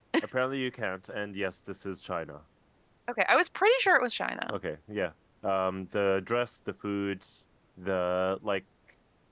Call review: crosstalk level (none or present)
none